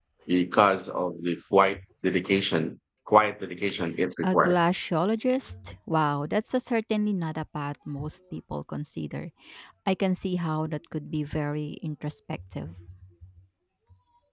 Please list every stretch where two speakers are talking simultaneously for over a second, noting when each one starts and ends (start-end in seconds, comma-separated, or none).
none